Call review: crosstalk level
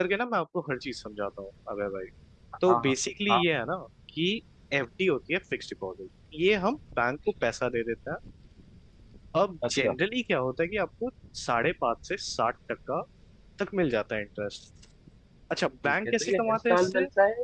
present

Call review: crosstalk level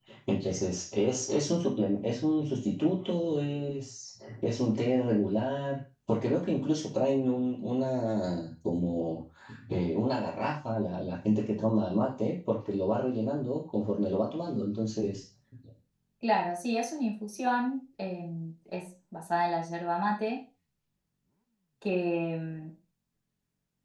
none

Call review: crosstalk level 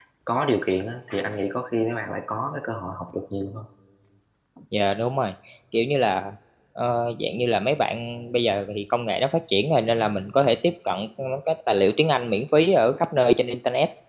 none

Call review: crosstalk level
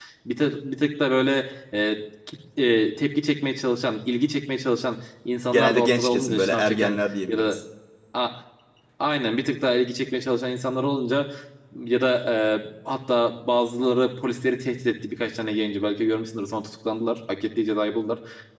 present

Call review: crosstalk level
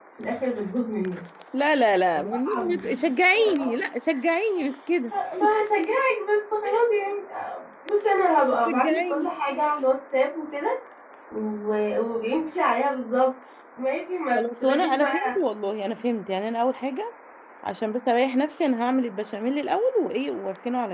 present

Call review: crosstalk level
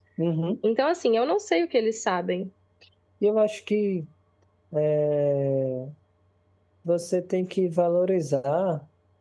none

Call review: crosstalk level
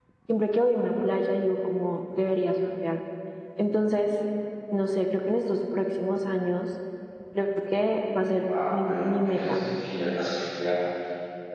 present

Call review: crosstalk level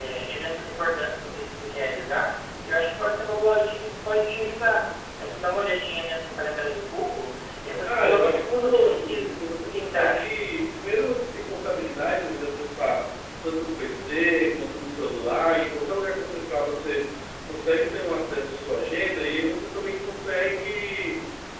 present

